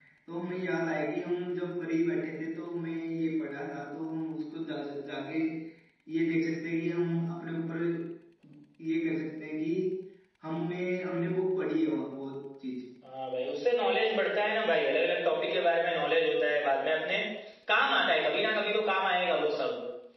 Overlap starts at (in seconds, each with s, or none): none